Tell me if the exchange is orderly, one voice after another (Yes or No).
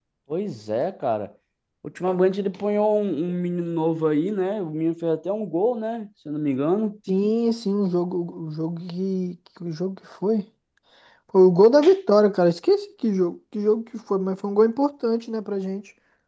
Yes